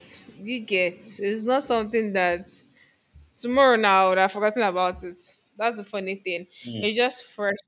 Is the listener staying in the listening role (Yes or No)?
Yes